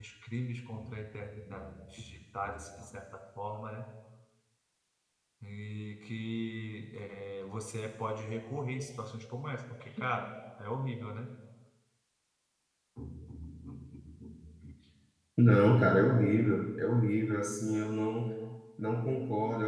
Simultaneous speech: No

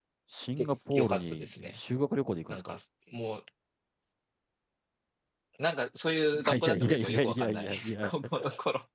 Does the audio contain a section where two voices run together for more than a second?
Yes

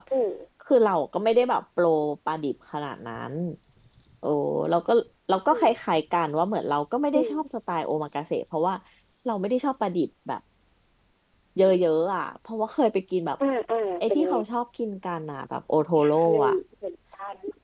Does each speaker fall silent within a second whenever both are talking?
Yes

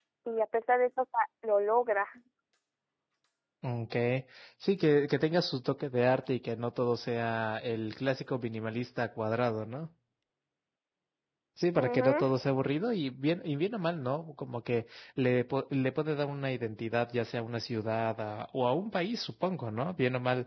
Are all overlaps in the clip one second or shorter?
Yes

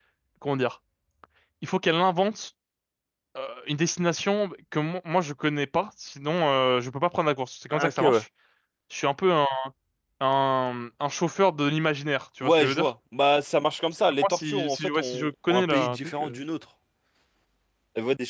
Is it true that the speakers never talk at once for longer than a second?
No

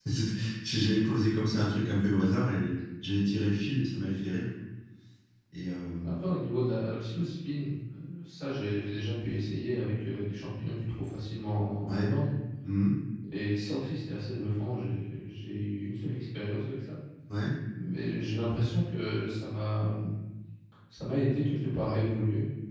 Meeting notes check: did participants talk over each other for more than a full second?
No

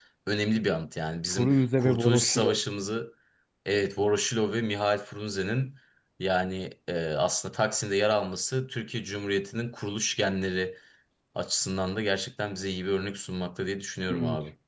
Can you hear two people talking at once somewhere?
Yes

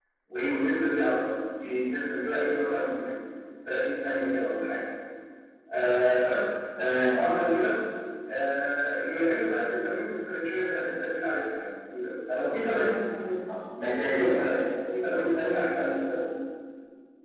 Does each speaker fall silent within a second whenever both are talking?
Yes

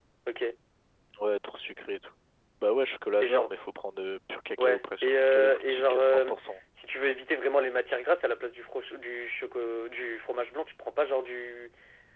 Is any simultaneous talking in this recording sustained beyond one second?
Yes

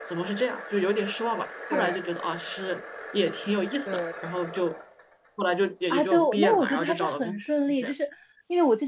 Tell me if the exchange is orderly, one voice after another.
No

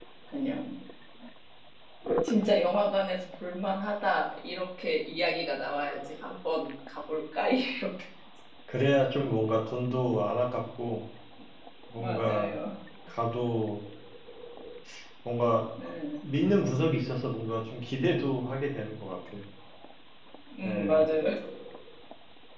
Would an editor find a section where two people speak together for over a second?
No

